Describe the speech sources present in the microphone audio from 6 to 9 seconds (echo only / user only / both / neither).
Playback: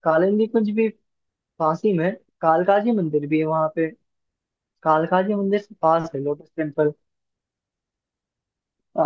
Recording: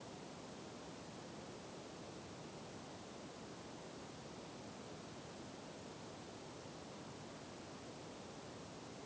neither